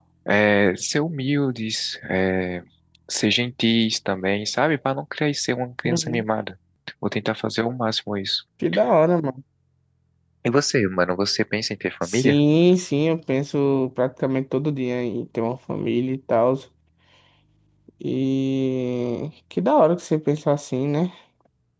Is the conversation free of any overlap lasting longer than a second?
Yes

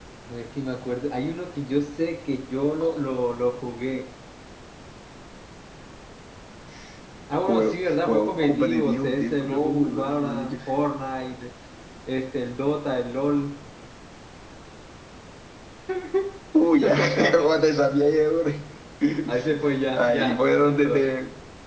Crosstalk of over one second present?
Yes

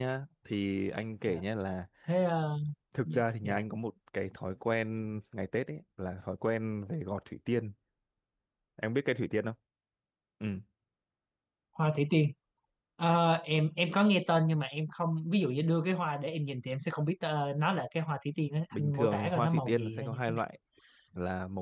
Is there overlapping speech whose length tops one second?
Yes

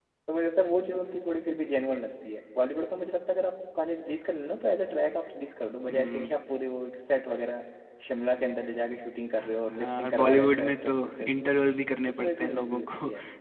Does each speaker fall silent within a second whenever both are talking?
No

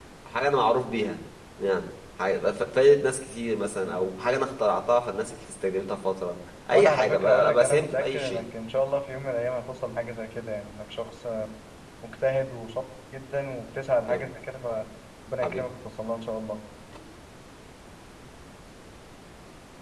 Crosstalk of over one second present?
Yes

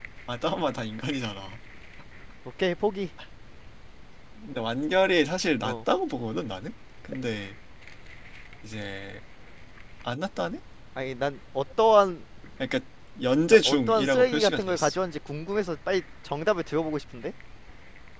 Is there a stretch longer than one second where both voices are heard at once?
Yes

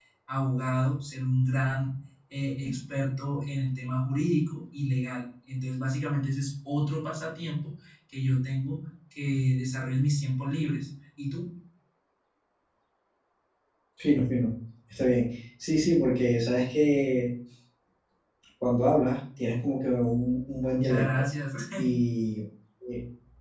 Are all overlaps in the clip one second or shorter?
Yes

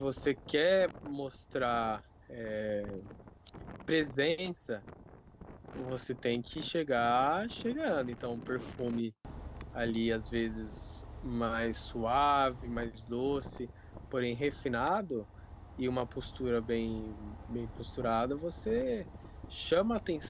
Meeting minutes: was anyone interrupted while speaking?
No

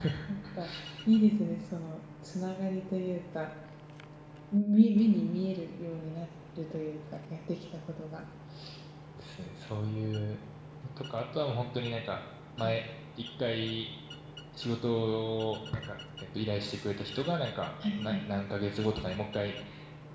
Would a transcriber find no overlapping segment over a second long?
Yes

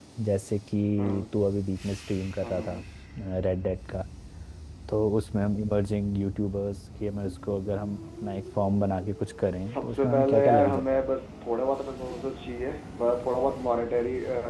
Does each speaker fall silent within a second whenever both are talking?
No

